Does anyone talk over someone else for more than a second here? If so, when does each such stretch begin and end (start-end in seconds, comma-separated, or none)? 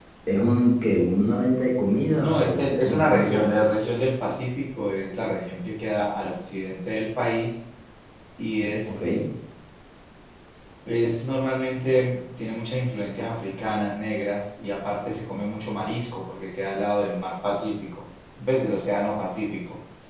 2.2-3.5